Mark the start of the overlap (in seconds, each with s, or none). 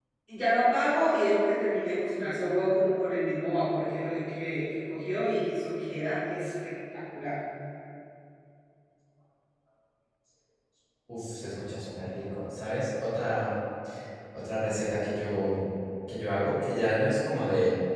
none